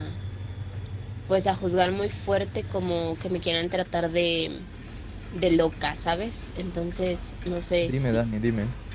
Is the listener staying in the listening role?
No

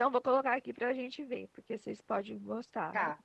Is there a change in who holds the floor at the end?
Yes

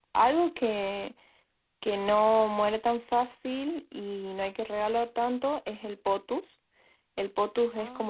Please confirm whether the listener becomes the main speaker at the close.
No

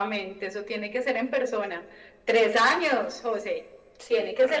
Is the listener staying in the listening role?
Yes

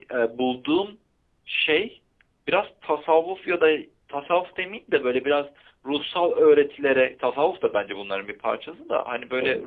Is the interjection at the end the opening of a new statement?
No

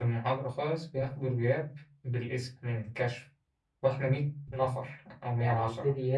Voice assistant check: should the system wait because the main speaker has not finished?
No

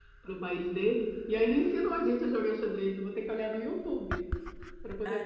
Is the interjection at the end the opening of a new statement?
Yes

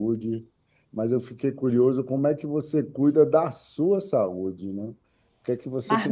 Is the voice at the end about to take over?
No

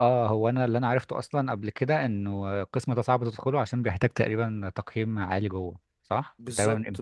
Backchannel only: No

